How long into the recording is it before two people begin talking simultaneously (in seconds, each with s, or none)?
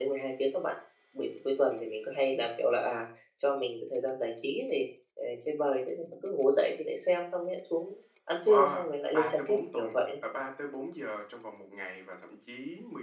8.4 s